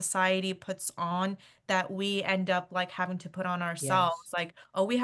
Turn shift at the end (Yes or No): No